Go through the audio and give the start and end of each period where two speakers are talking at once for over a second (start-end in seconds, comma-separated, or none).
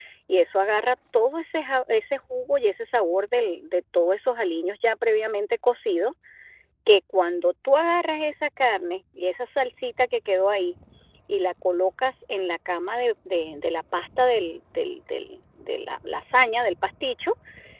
none